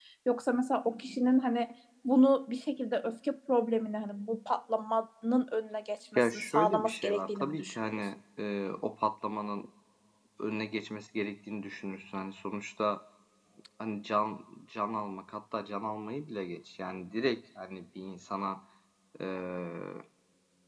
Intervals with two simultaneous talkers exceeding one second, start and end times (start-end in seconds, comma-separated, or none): 6.2-8.1